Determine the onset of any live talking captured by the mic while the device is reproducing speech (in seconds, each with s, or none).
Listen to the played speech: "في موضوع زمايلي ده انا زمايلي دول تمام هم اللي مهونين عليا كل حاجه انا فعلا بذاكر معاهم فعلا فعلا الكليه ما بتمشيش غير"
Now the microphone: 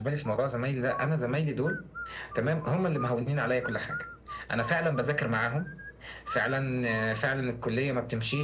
none